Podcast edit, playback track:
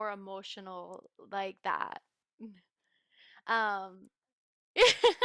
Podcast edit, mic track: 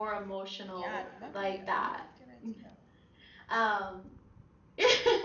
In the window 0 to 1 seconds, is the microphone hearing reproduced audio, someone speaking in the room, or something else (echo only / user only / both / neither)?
both